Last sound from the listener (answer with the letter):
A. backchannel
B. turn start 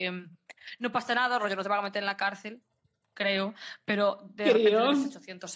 A